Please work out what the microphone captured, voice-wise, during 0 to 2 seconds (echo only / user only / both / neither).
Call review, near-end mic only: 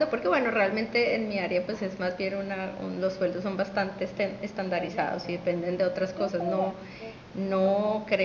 echo only